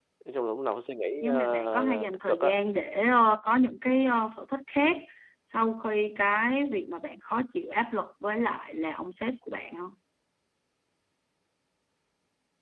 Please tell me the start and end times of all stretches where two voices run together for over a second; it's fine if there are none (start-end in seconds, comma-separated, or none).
1.2-2.5